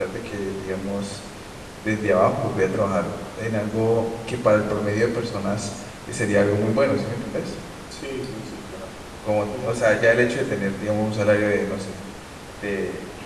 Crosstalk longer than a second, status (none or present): none